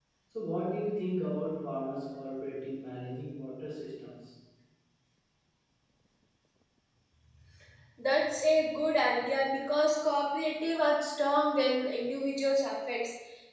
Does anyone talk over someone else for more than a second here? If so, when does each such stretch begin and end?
none

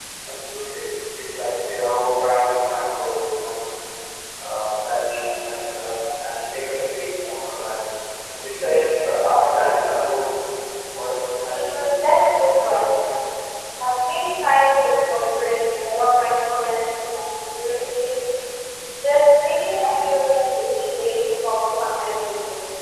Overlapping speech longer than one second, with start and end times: 11.4-12.8

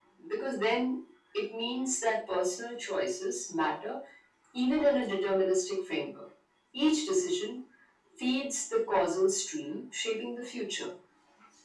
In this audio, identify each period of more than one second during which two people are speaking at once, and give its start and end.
none

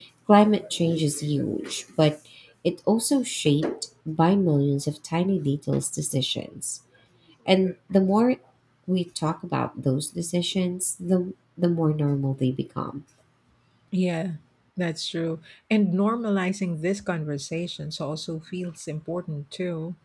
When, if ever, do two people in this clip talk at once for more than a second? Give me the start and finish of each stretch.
none

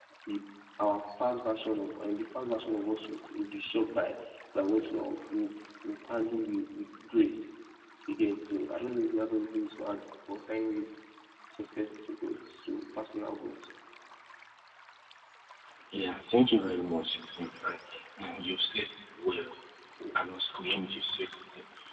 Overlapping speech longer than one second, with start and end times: none

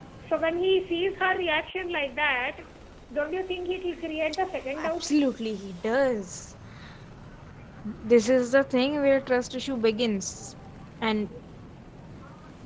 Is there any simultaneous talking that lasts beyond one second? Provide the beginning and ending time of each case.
none

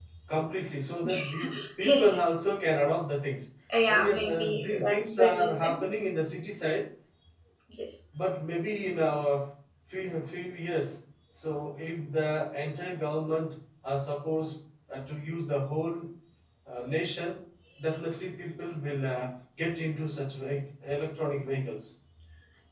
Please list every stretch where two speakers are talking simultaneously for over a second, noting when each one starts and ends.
3.9-5.8

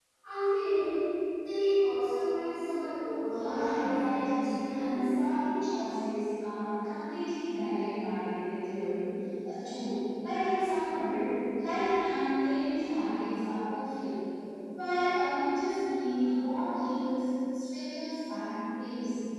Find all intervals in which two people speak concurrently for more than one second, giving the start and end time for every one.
3.3-5.1

